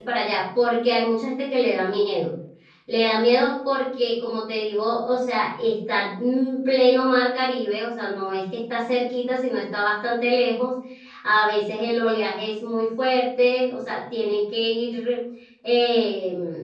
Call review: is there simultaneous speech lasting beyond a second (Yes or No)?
No